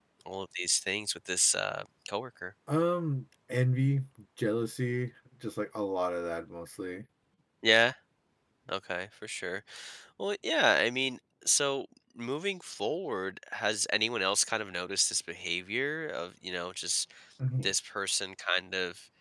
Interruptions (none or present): none